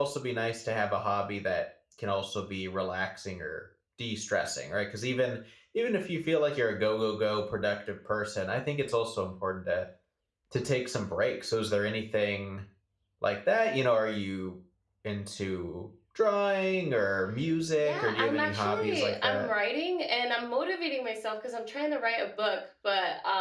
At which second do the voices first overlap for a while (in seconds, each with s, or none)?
17.8 s